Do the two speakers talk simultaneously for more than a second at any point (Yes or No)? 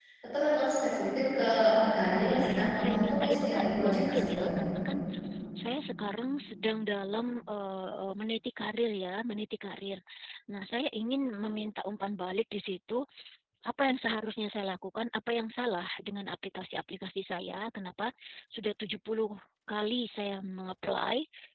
Yes